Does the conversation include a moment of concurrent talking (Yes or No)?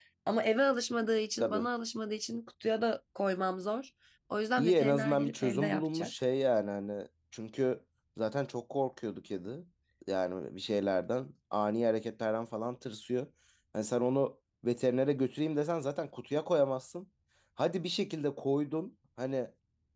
Yes